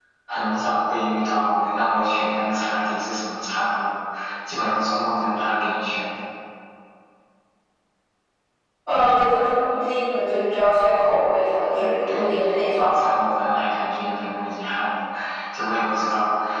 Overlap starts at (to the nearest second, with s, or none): 12 s